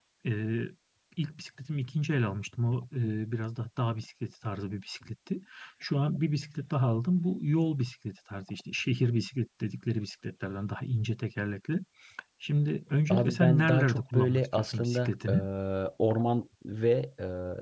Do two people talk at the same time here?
Yes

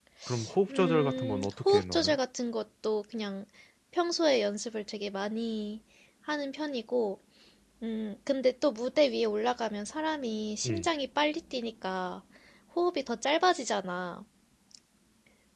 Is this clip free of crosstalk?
No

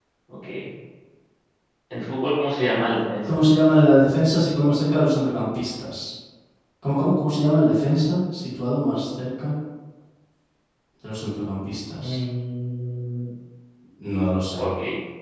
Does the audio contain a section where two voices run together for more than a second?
No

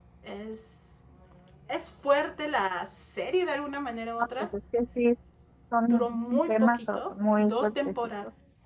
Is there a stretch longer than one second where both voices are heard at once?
Yes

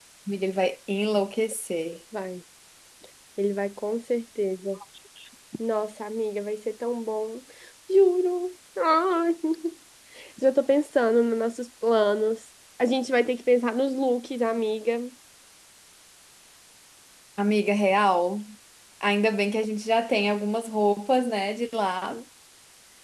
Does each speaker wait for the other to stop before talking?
Yes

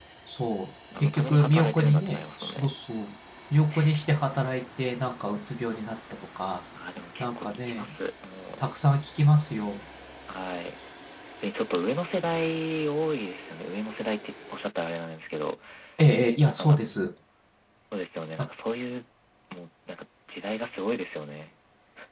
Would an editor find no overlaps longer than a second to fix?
No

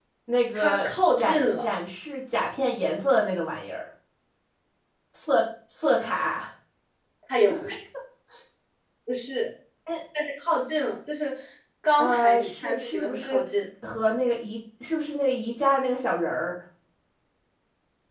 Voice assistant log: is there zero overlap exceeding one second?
No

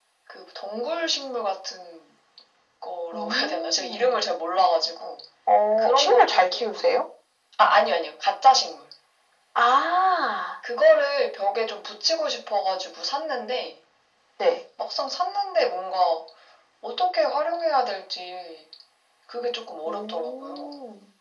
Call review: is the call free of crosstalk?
No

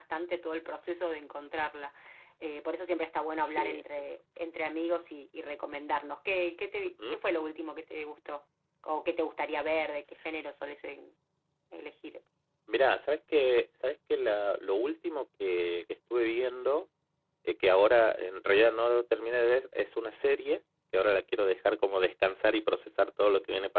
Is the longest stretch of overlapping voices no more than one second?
Yes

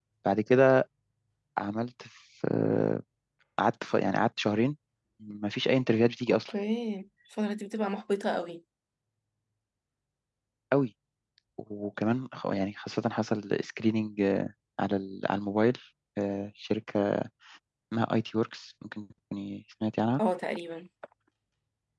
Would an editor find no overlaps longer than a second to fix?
Yes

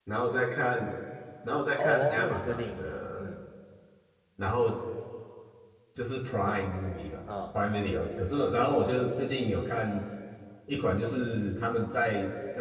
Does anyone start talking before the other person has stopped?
Yes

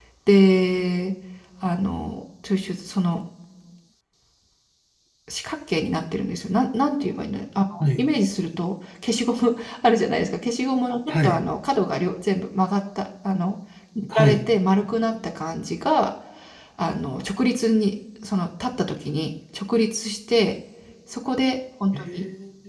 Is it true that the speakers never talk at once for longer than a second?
Yes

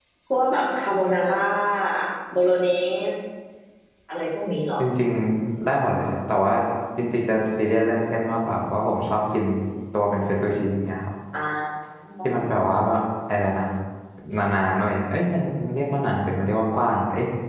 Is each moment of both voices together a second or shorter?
Yes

